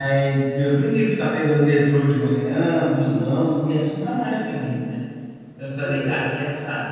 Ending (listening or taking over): listening